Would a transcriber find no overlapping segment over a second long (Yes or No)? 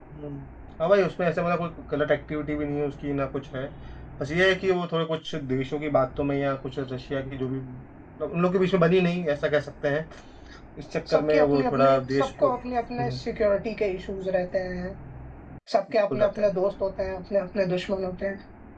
No